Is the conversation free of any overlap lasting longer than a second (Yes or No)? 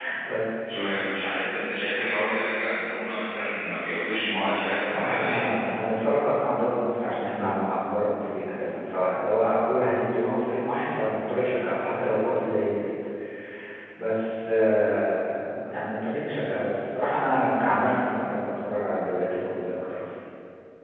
Yes